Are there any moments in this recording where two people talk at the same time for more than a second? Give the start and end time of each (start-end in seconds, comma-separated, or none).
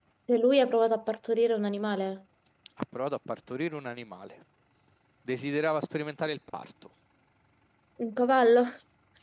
none